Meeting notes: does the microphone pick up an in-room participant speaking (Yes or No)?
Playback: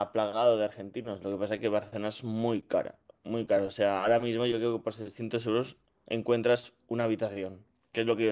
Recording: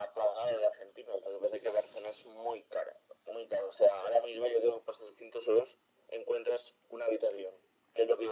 No